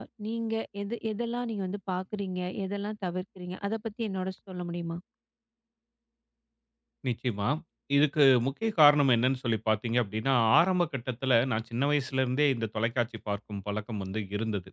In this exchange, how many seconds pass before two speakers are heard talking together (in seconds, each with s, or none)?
none